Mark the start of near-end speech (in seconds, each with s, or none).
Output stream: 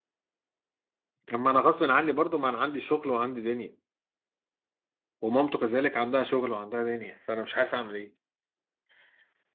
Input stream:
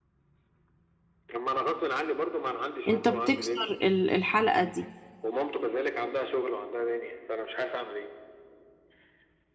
2.9 s